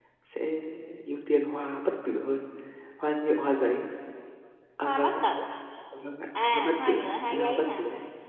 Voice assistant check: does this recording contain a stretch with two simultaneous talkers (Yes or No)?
Yes